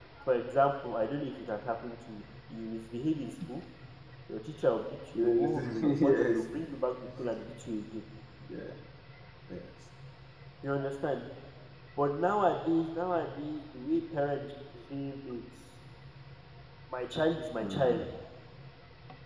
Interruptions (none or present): present